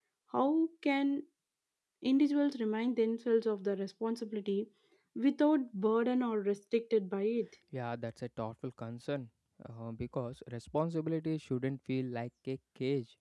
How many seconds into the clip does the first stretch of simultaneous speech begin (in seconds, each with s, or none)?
none